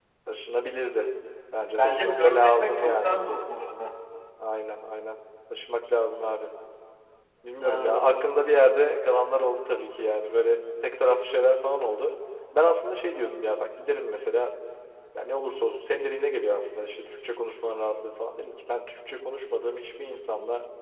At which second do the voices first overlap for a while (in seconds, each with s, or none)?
1.8 s